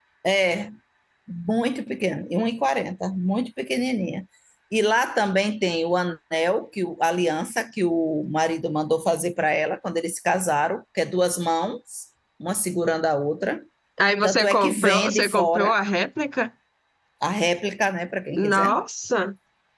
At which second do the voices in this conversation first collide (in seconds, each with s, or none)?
14.2 s